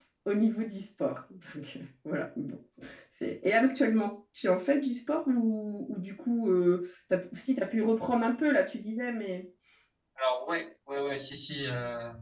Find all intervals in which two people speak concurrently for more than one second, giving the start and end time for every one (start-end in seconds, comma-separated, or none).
none